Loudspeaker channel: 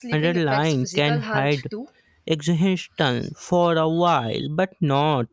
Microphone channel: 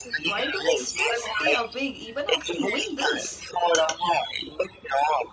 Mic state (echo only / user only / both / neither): both